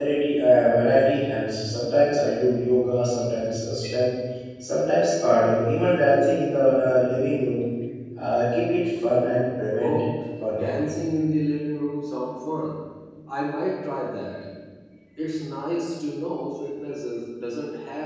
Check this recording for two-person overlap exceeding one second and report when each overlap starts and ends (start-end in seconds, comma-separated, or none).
none